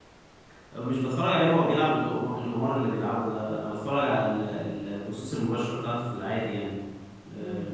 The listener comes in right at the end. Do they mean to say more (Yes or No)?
Yes